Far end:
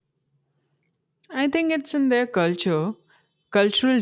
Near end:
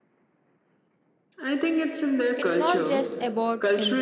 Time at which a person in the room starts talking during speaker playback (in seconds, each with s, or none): 2.3 s